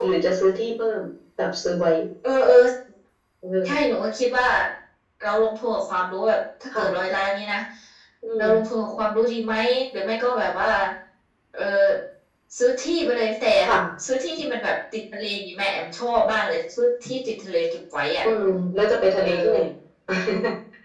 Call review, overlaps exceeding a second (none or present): none